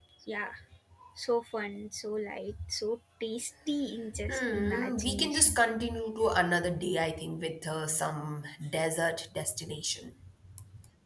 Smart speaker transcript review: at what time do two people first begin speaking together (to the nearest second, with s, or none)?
4 s